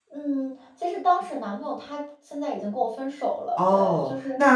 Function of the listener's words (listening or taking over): taking over